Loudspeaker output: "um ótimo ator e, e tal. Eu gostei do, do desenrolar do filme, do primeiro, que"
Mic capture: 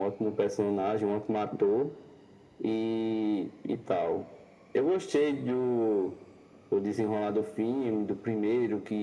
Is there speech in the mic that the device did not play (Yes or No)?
No